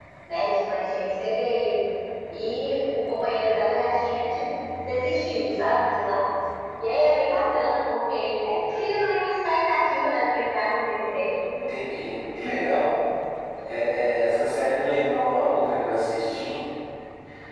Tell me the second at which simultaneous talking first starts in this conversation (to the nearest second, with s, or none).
none